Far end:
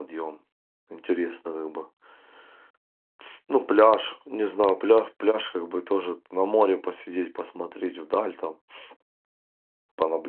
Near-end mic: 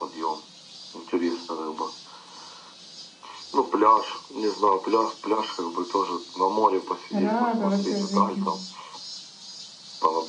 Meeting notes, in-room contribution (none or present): present